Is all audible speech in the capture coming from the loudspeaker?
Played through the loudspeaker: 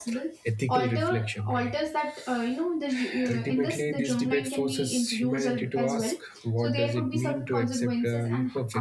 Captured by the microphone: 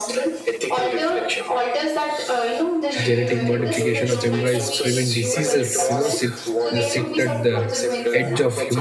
No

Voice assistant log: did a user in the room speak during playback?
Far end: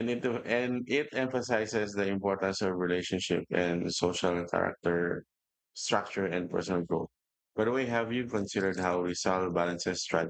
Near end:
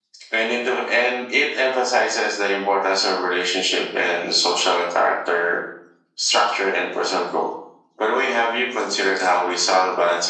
No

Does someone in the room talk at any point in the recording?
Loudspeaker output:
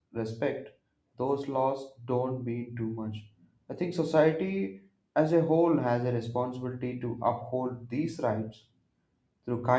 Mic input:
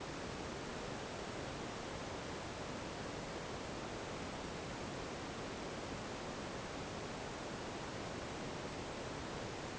No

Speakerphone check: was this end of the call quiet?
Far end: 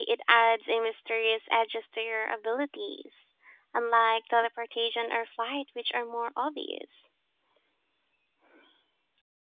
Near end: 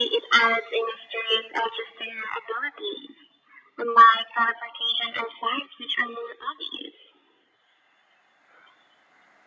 Yes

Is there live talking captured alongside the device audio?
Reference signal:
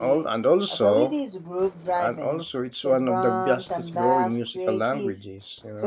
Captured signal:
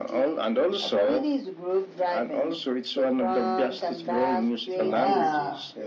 Yes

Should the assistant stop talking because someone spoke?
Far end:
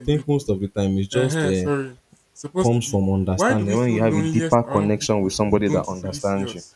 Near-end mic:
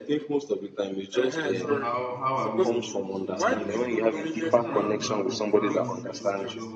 Yes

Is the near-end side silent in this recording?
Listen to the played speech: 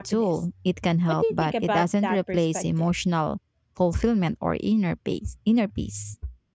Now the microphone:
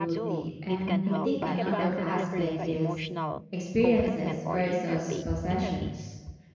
No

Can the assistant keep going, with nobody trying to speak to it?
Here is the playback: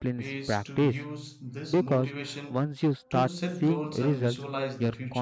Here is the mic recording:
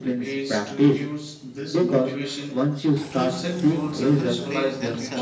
No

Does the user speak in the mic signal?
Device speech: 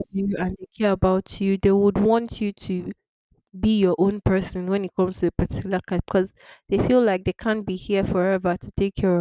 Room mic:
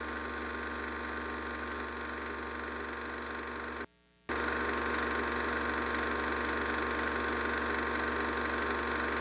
No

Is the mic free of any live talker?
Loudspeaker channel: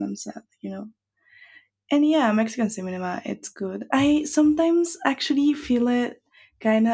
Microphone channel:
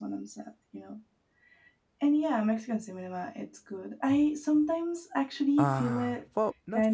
No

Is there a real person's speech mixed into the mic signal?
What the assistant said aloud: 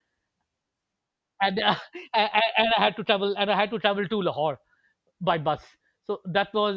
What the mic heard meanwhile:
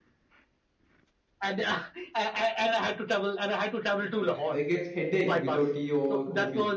Yes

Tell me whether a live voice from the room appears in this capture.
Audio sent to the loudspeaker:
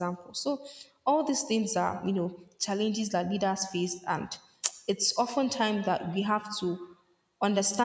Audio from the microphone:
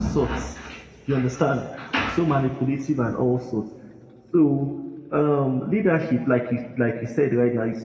Yes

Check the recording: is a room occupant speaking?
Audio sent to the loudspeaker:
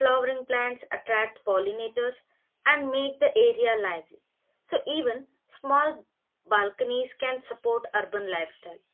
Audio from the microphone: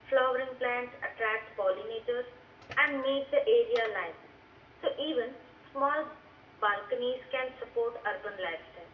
No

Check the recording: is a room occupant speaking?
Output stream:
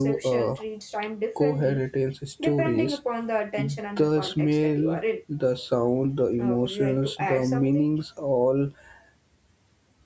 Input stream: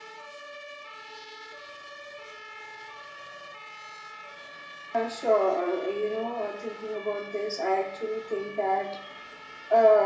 Yes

